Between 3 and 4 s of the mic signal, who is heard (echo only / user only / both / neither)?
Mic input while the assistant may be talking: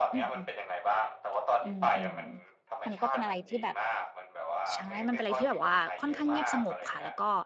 both